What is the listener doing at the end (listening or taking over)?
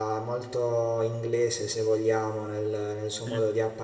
listening